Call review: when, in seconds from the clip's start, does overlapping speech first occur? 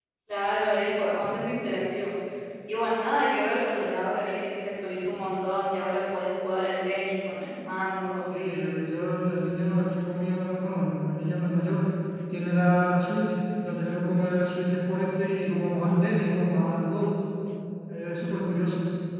none

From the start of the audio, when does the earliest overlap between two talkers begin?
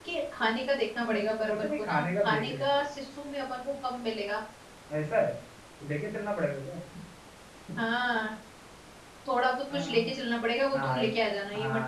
1 s

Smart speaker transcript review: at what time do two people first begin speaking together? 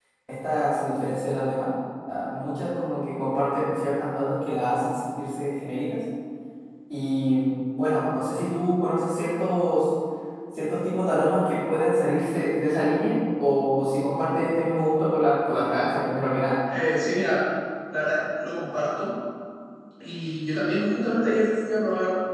none

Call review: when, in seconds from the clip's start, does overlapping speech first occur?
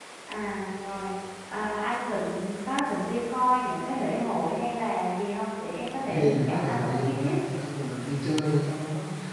6 s

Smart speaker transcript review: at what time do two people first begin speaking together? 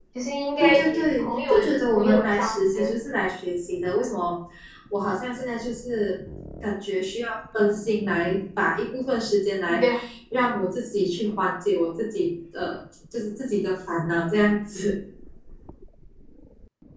1 s

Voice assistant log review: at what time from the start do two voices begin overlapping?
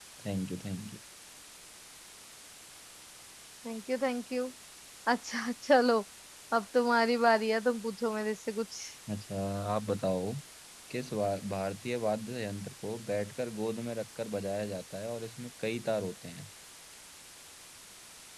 none

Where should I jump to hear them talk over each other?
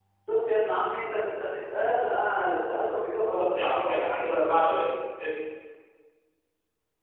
3 s

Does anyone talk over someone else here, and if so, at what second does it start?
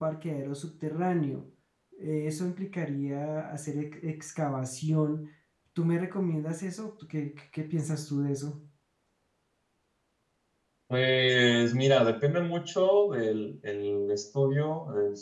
none

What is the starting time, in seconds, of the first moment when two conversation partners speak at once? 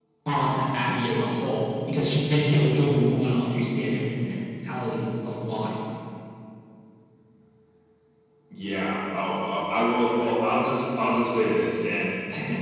none

